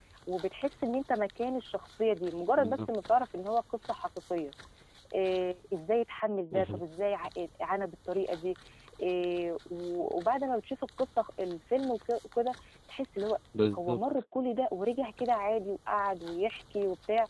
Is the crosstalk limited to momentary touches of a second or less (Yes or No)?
Yes